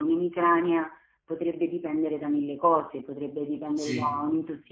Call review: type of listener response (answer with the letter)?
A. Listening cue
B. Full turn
A